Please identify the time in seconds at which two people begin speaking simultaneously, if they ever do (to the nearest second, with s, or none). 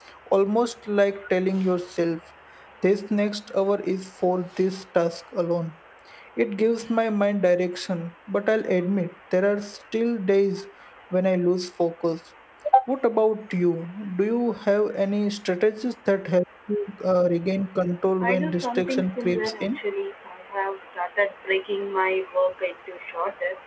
18 s